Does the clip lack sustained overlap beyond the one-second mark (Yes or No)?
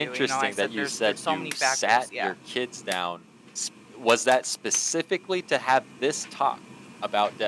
No